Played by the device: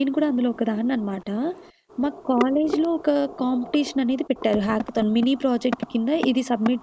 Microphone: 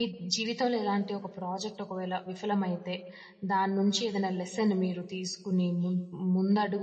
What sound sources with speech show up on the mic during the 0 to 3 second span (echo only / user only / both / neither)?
user only